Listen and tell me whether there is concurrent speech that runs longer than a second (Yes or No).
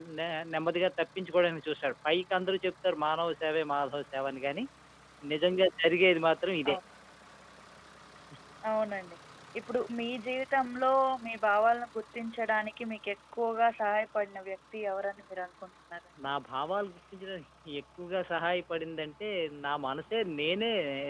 No